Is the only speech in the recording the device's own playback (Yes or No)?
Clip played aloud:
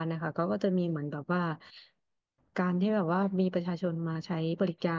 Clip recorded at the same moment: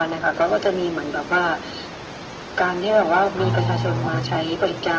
No